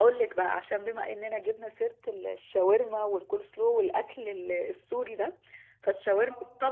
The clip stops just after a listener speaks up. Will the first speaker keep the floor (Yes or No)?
Yes